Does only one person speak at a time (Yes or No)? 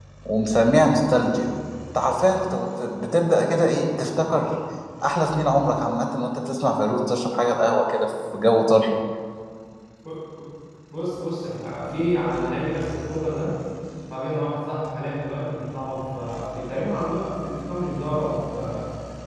Yes